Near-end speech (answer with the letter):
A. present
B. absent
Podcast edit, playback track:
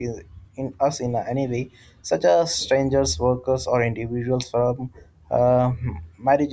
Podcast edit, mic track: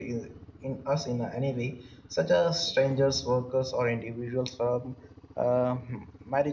B